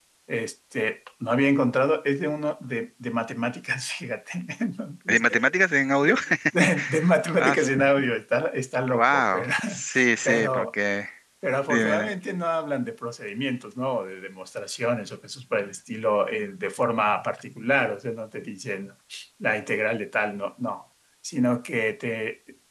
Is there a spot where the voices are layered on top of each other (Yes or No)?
Yes